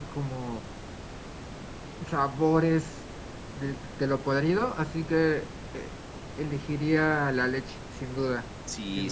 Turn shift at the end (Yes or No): Yes